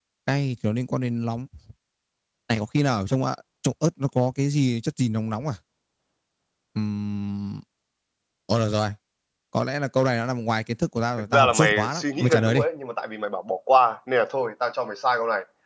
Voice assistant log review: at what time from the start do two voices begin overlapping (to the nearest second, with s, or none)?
11 s